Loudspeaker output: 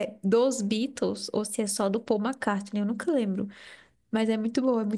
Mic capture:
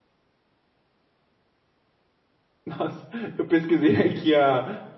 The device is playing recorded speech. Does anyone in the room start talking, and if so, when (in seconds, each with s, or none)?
2.6 s